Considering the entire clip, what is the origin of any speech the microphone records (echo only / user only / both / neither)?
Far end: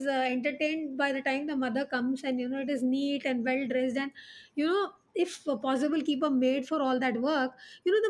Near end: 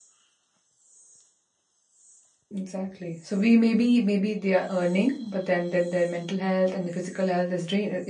user only